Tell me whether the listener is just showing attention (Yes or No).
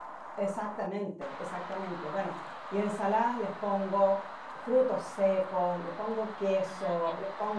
Yes